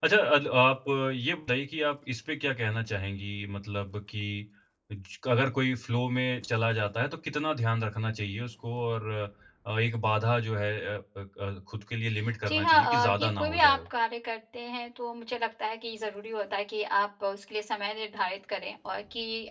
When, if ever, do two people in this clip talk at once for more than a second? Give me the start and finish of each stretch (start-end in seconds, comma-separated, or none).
12.5-13.8